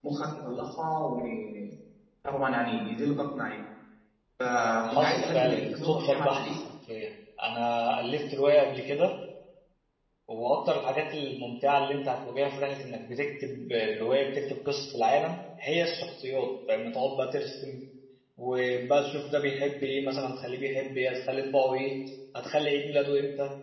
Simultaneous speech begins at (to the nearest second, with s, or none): 5 s